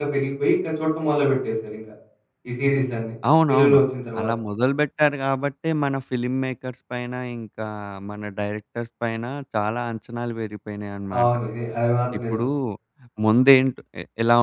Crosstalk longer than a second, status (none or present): none